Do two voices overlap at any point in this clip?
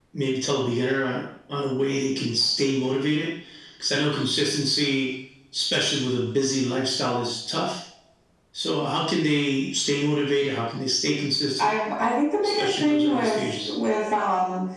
Yes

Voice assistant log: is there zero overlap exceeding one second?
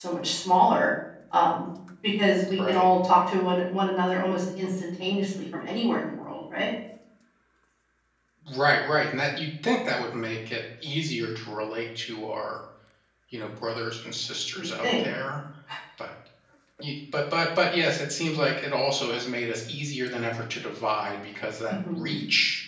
Yes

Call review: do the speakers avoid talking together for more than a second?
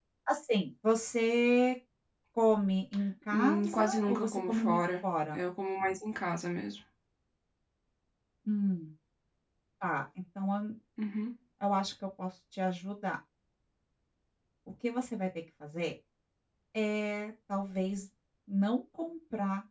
No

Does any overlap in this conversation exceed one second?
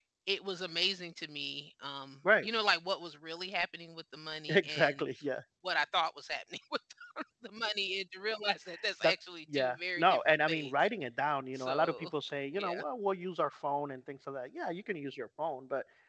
Yes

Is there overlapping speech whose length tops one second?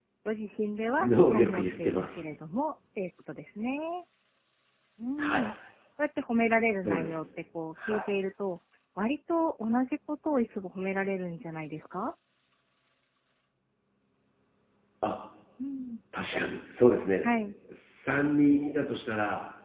Yes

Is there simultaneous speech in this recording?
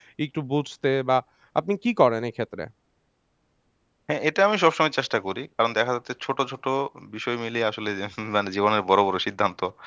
No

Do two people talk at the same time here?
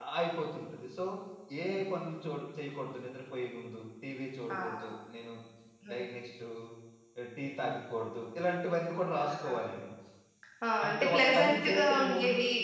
Yes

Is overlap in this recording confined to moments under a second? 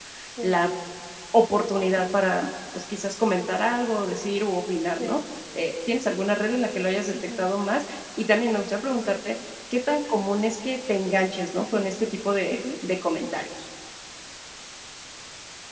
Yes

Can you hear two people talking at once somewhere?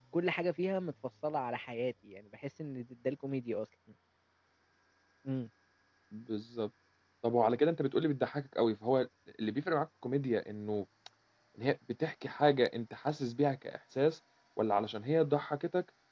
No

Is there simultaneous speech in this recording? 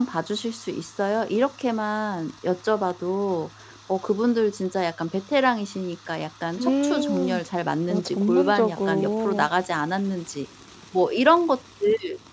Yes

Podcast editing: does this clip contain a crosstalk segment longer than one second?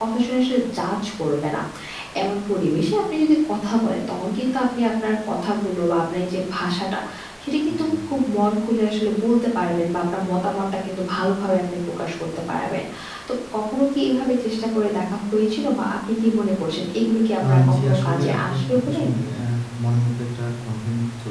Yes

